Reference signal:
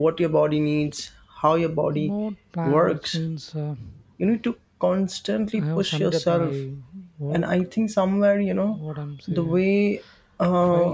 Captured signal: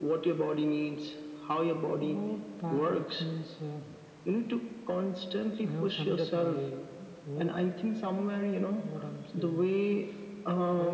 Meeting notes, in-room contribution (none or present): none